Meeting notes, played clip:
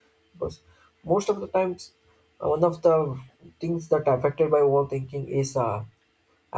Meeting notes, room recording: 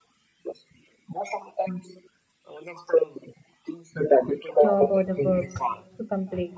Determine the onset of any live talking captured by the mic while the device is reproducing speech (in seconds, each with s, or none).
4.6 s